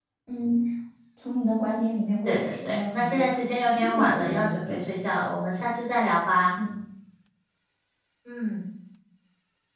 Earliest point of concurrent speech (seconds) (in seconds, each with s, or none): 2.2 s